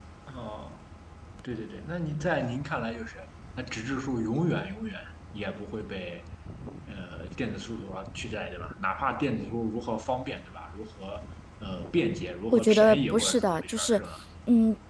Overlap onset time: 12.5 s

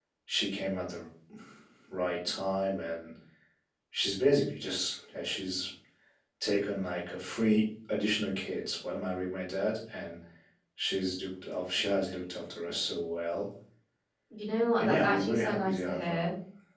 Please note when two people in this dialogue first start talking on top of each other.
14.8 s

